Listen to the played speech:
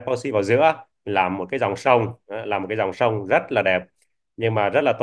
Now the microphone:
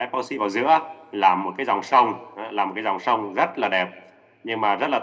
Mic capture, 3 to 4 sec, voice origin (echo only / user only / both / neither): echo only